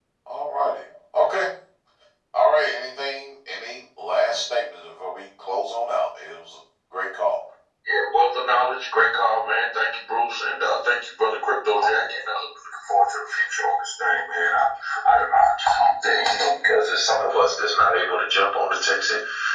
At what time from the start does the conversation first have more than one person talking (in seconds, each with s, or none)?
none